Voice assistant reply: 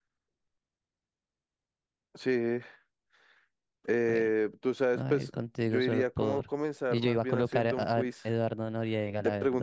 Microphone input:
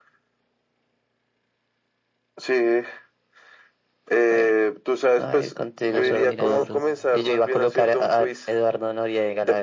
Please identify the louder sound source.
echo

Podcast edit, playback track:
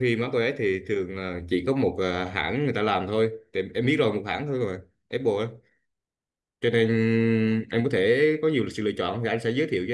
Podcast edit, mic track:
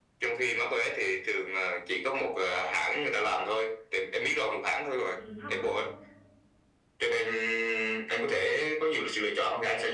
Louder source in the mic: echo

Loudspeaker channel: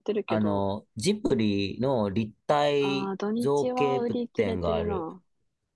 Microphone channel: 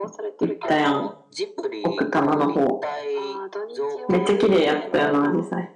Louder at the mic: user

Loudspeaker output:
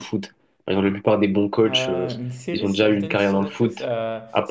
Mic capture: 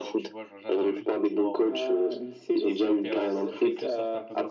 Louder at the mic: echo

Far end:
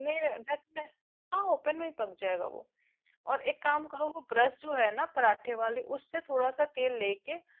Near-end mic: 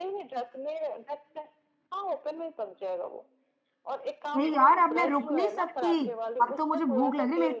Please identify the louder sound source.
user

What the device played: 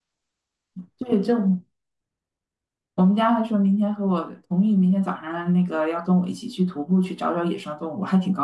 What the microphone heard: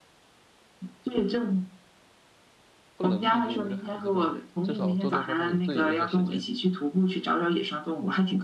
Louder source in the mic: echo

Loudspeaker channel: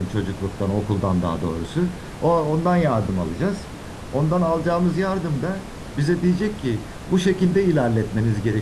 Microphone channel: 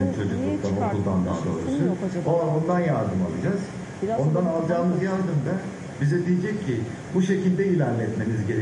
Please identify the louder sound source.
echo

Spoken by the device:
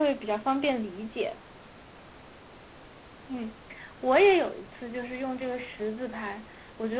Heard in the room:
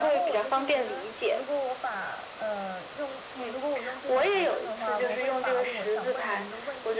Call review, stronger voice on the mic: echo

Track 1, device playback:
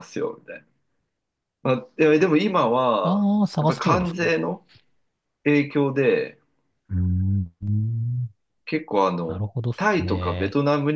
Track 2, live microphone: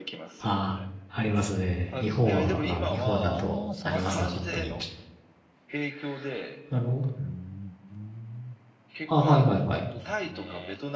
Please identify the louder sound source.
user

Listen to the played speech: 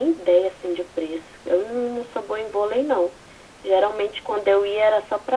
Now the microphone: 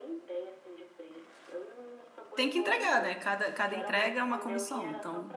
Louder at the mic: user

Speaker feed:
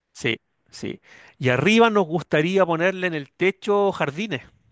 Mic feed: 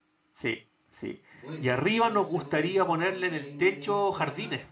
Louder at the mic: echo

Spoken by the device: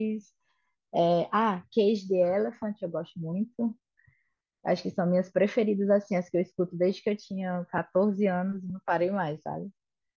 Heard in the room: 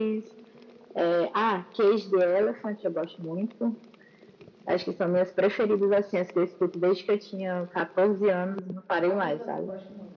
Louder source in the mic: echo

